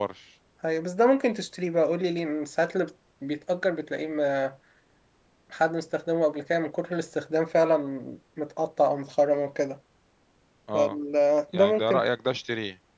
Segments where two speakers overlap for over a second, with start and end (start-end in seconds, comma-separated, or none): none